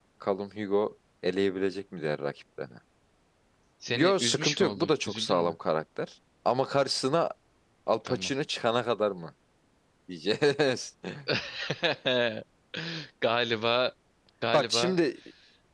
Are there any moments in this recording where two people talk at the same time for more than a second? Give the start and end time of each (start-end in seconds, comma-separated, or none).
3.9-5.5